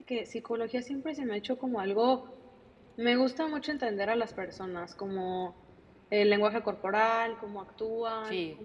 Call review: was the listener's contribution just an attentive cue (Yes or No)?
Yes